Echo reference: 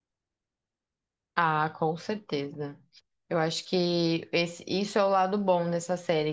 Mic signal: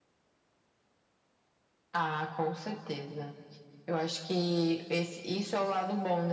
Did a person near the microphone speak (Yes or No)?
No